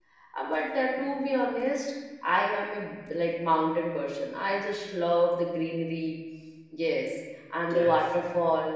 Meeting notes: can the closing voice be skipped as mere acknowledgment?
Yes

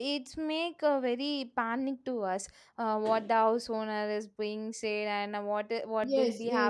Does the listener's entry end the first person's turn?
Yes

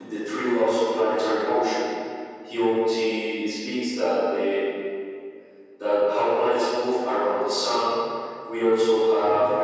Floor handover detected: No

